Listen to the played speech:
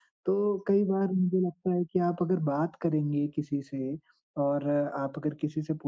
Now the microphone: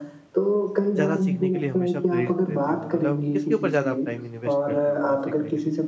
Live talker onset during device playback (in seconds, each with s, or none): 0.9 s